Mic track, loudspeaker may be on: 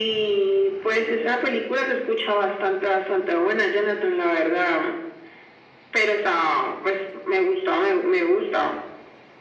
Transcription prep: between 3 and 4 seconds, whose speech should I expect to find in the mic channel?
echo only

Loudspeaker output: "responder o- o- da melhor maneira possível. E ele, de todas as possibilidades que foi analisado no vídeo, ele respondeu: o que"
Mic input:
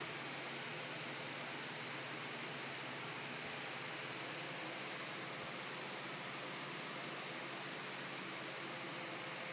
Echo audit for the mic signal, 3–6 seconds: neither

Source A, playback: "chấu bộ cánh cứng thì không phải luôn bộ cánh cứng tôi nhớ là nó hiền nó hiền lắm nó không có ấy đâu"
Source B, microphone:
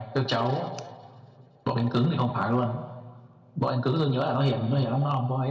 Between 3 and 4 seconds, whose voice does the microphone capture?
echo only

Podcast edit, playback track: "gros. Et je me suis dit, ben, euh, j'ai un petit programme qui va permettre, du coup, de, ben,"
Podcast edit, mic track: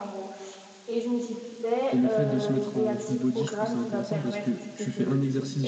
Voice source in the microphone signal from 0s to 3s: both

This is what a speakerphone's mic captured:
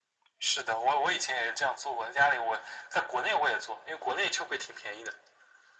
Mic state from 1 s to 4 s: echo only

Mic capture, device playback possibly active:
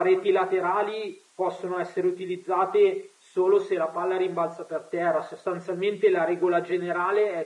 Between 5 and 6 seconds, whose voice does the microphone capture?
user only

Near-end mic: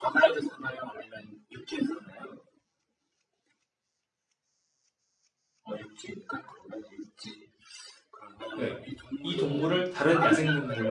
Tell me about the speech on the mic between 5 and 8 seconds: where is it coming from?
echo only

